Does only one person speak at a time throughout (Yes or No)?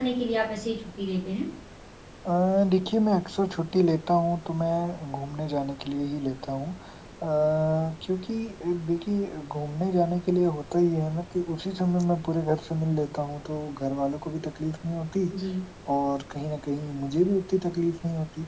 Yes